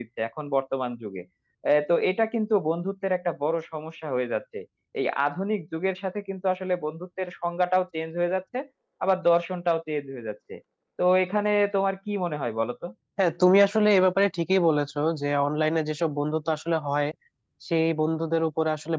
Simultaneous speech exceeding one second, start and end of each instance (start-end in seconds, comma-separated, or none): none